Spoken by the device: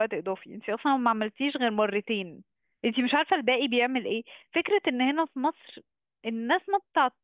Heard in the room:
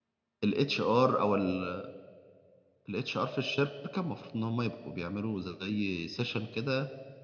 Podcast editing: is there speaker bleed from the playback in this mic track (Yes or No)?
No